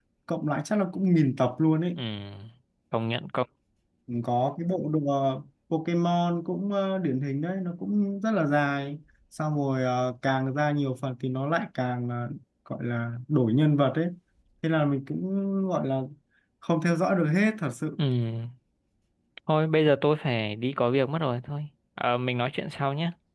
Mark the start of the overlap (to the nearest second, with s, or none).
none